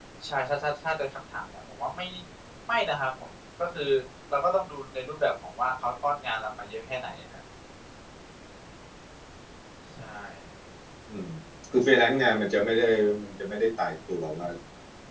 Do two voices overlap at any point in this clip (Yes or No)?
No